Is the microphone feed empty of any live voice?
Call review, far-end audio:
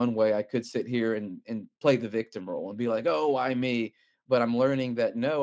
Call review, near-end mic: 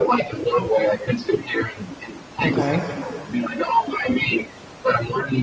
No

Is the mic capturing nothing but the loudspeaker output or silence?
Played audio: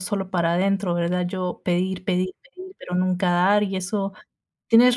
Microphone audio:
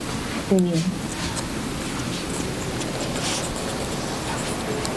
No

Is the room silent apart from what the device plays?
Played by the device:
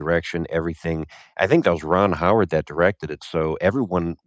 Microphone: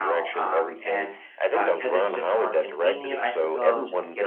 No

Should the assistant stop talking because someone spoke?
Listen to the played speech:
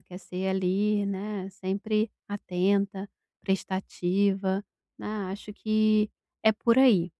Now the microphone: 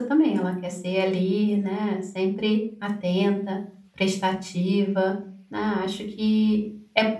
No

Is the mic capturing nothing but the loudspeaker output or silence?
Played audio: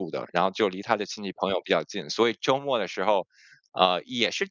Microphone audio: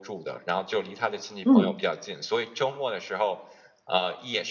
No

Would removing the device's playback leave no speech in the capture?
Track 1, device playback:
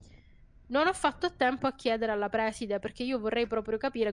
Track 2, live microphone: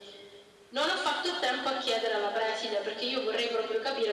Yes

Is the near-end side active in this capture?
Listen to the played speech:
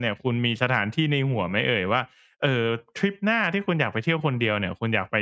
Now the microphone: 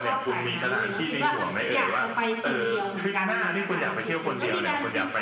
Yes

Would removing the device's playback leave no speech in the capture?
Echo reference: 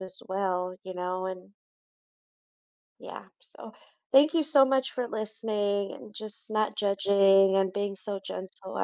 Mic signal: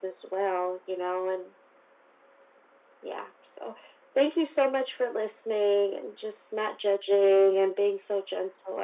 Yes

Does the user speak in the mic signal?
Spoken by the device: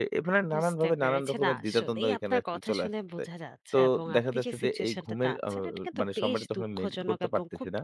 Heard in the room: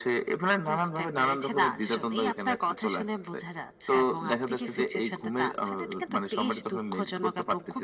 No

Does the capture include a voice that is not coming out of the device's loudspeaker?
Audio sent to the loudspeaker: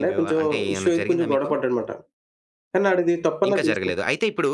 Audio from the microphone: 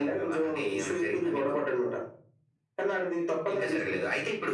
No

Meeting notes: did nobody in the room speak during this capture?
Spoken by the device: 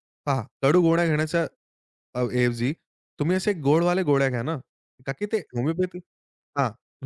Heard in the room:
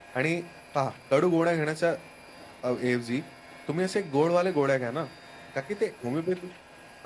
Yes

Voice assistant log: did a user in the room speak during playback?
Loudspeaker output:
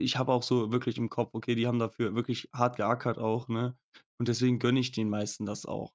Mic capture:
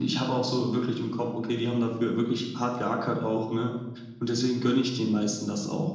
No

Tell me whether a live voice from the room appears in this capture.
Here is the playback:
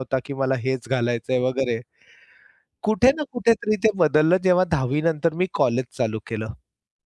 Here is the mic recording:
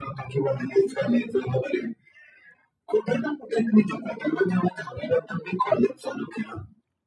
No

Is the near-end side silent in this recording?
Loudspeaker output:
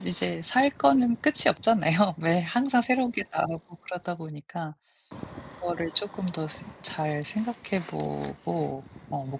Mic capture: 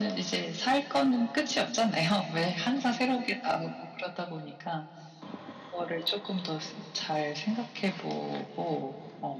Yes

